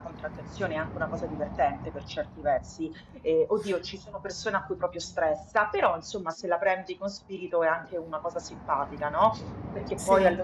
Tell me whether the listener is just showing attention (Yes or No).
Yes